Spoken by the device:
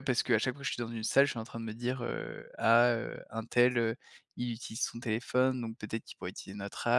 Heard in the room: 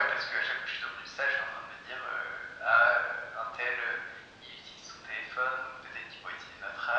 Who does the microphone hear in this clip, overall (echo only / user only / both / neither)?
echo only